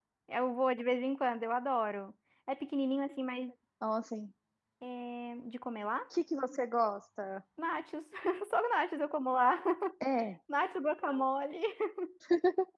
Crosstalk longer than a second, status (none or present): none